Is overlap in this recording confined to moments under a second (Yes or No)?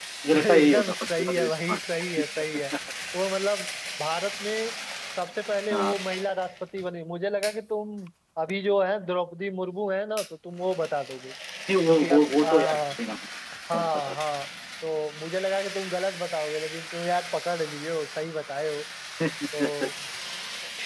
No